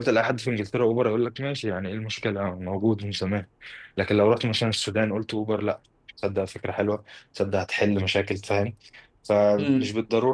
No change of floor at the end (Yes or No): Yes